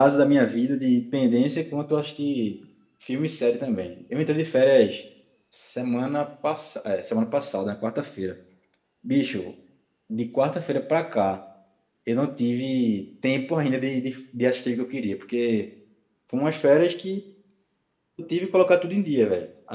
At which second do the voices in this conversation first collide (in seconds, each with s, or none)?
none